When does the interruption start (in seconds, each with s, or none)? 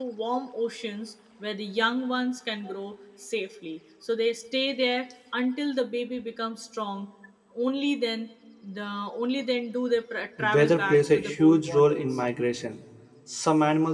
10.4 s